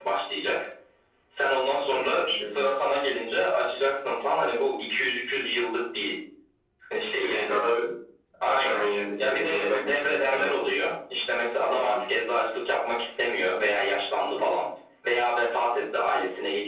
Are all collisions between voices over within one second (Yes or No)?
No